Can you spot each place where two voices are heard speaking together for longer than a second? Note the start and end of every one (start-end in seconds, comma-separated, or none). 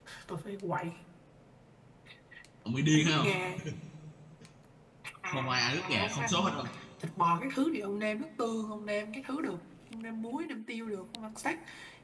5.3-6.6